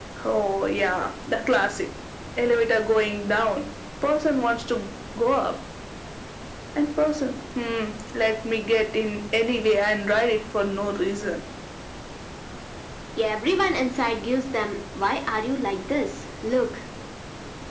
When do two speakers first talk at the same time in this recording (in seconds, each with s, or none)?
none